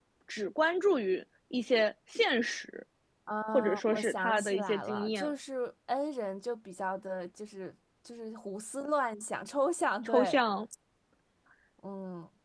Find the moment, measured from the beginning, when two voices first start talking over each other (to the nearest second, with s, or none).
4 s